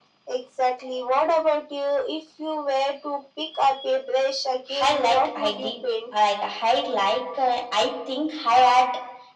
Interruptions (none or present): present